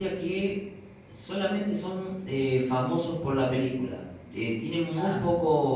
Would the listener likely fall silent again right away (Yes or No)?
Yes